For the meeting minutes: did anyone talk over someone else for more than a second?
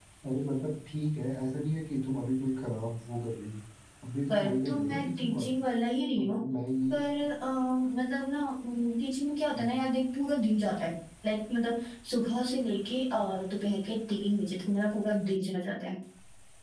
Yes, from 4.3 s

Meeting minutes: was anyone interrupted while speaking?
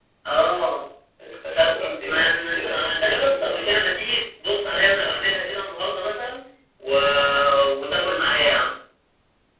Yes, from 1.6 s

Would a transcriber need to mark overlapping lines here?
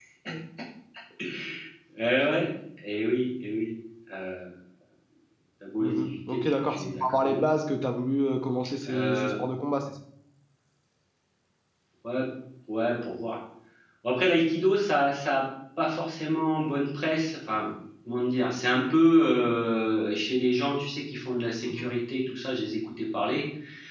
Yes, from 5.8 s

